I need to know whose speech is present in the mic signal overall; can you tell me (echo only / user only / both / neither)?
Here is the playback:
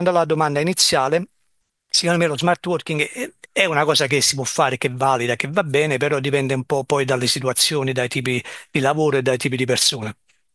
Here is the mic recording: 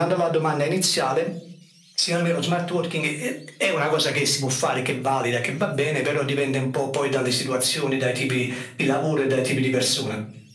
echo only